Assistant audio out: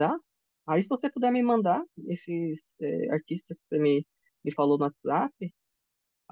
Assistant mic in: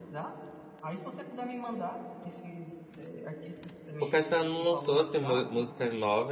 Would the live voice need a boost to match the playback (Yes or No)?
No